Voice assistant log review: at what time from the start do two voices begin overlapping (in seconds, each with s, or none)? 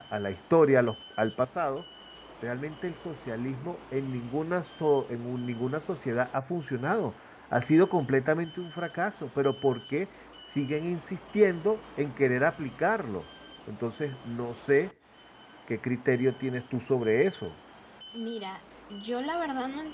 none